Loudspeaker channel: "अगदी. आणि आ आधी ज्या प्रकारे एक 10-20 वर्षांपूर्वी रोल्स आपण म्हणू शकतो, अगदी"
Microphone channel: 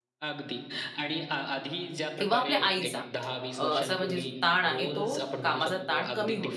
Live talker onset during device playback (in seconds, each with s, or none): 2.2 s